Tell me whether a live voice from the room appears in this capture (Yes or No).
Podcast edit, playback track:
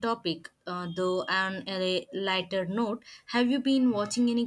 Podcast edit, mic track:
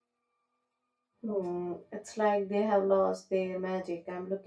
Yes